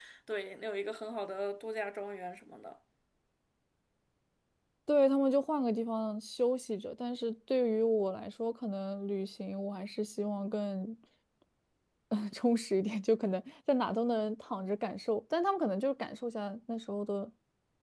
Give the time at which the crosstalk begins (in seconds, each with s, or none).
none